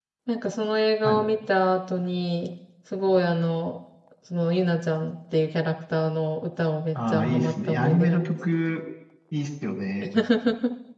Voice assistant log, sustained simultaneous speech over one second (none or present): present